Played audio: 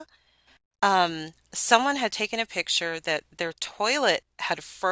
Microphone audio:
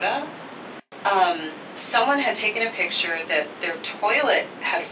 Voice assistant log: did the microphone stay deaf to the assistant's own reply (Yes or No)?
No